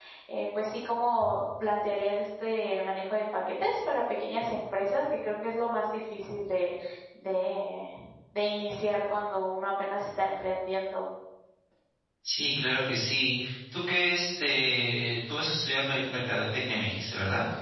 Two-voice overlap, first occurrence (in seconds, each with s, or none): none